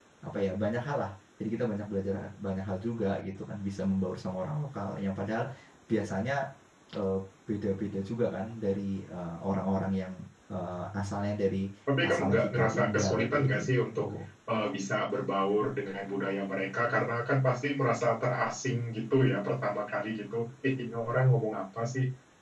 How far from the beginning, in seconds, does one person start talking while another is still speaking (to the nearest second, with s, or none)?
12 s